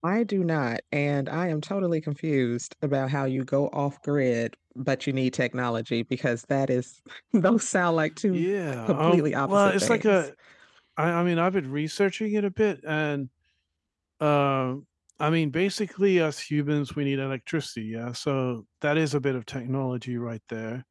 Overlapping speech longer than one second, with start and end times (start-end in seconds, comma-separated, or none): 8.9-10.2